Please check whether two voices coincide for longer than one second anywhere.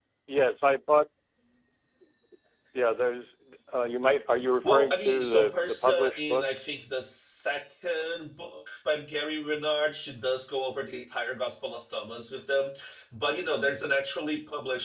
Yes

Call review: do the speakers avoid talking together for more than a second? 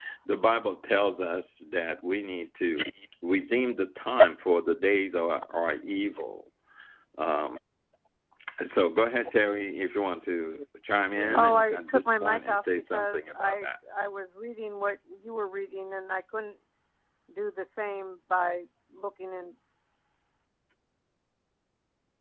No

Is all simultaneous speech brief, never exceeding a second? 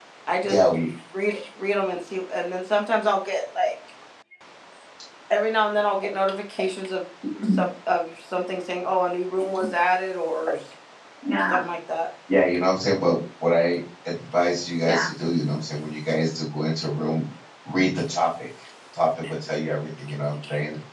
Yes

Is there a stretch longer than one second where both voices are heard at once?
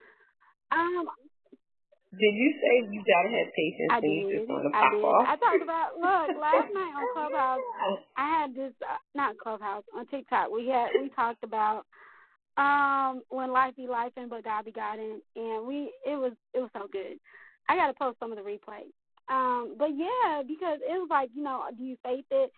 Yes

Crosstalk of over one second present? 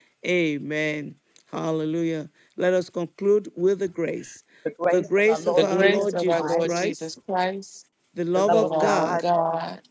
Yes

